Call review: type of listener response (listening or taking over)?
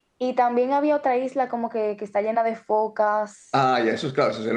taking over